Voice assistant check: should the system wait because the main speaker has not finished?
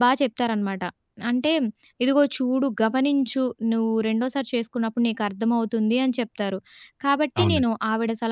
Yes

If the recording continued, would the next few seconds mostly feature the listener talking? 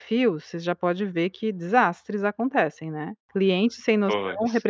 No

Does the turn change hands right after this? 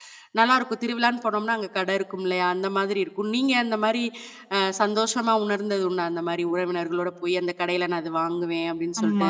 Yes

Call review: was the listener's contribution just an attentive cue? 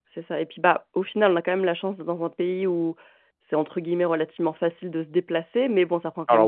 Yes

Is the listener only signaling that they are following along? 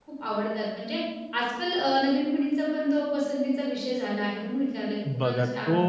No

